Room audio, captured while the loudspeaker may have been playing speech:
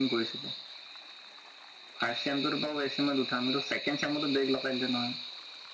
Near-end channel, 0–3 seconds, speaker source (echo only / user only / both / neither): echo only